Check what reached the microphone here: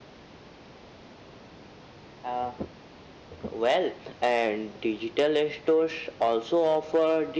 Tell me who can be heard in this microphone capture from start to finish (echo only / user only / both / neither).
echo only